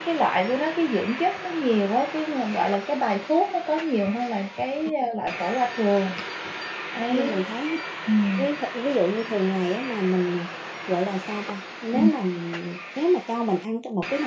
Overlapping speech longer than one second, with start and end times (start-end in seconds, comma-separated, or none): none